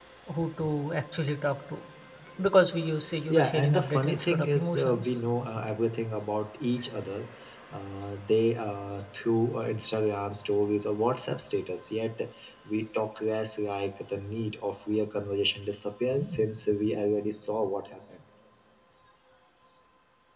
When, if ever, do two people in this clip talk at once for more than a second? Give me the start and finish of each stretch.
3.3-5.2

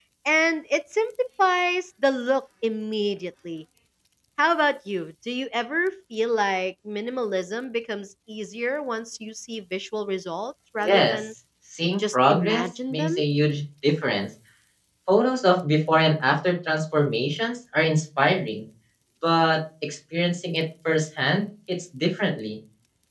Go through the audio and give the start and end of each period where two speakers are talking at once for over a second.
11.9-13.2

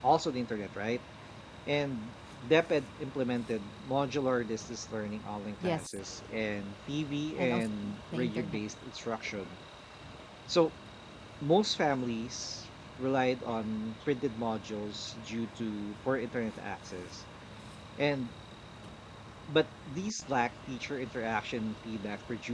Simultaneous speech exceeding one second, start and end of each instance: 7.4-8.6

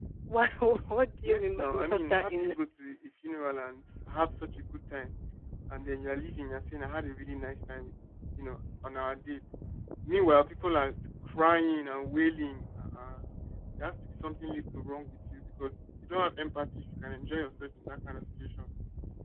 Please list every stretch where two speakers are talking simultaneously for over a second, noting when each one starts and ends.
1.2-2.5

